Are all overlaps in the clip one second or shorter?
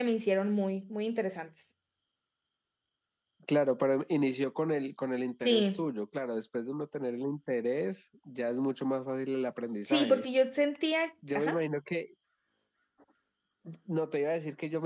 Yes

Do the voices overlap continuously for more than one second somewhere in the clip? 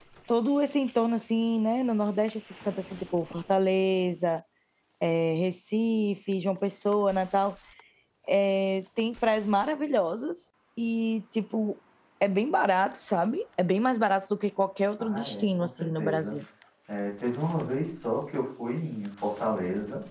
Yes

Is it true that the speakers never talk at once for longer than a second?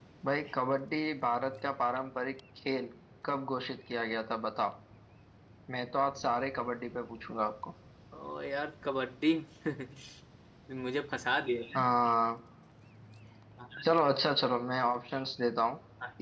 Yes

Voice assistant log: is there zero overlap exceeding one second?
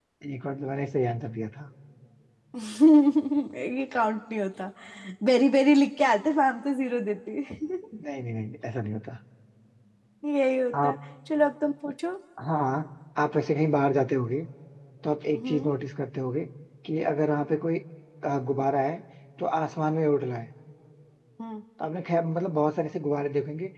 Yes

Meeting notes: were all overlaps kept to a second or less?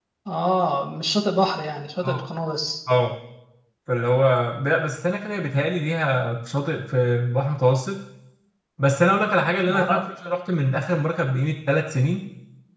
Yes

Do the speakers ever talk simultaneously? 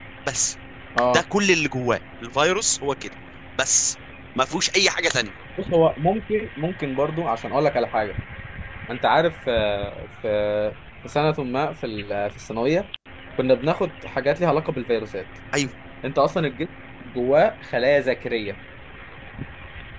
No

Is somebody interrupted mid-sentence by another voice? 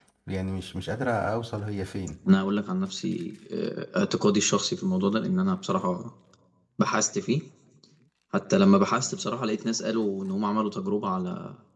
No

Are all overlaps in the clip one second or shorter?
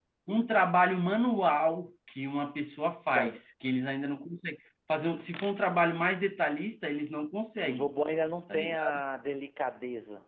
Yes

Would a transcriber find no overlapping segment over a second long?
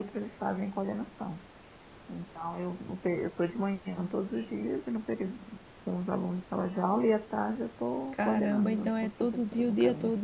No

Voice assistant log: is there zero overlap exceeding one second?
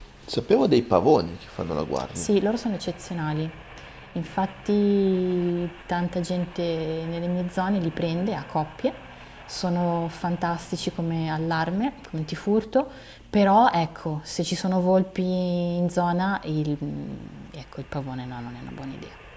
Yes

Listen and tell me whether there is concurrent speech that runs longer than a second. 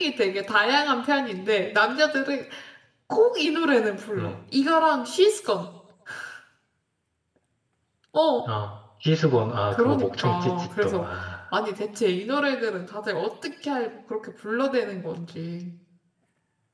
Yes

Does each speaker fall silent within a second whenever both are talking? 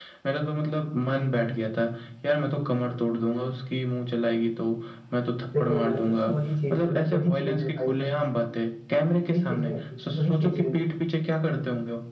No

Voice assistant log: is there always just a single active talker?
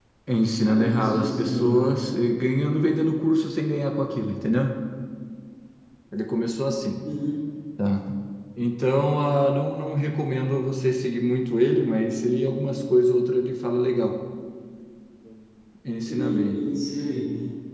No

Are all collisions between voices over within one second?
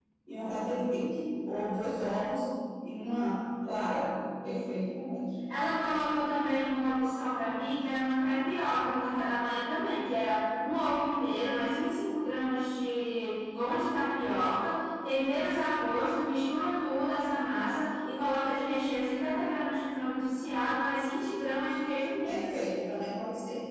Yes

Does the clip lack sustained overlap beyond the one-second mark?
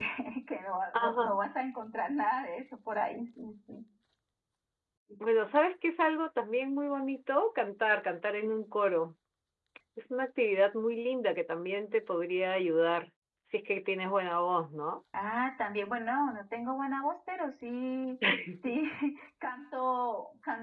Yes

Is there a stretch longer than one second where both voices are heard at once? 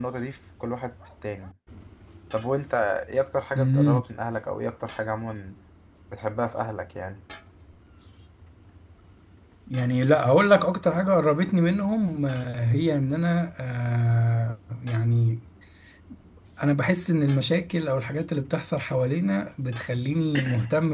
No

